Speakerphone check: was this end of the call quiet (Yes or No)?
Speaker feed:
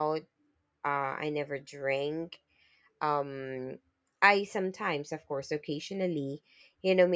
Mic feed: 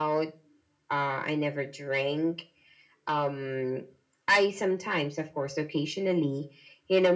Yes